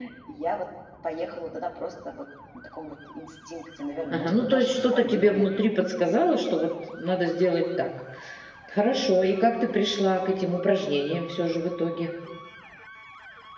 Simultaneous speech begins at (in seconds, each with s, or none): 4.1 s